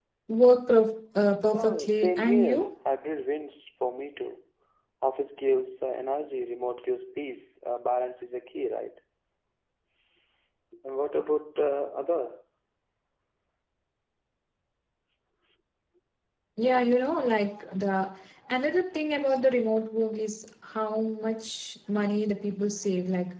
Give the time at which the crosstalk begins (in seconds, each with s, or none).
1.5 s